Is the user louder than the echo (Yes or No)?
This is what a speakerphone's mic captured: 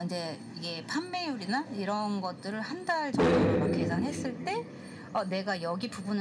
Yes